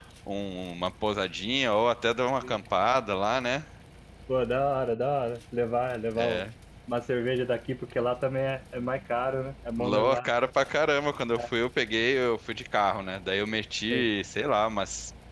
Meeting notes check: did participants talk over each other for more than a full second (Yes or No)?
No